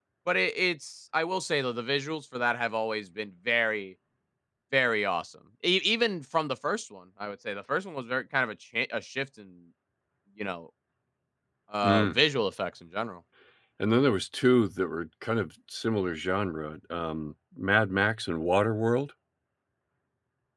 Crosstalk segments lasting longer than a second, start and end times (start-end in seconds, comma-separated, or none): none